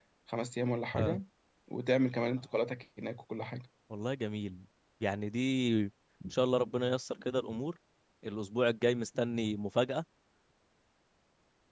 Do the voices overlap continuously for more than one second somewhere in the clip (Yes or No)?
No